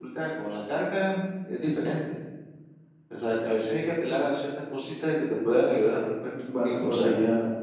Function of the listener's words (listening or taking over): taking over